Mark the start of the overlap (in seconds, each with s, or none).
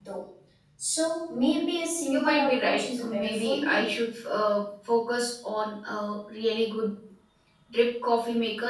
2.1 s